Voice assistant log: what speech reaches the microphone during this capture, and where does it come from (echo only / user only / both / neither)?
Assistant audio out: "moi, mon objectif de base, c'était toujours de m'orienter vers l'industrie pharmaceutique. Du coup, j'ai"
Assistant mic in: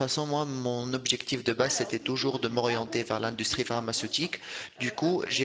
both